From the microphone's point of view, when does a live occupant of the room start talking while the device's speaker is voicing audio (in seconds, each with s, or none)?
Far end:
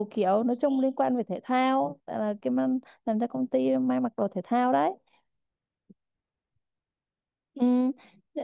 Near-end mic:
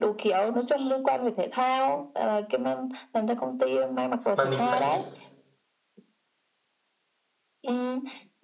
4.3 s